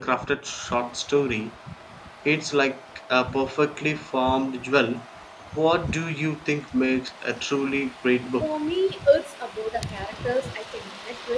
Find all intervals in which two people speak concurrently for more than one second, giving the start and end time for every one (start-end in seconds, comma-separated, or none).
none